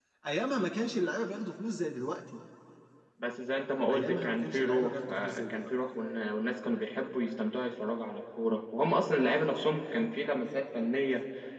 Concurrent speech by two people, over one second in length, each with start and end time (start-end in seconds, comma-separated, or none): 3.9-5.7